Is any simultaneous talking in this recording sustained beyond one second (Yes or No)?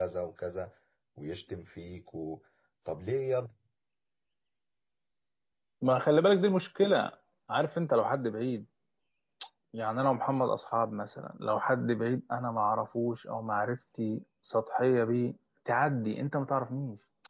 No